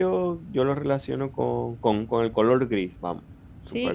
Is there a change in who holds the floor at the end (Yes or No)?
Yes